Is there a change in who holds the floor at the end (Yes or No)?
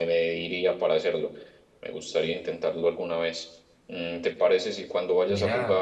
No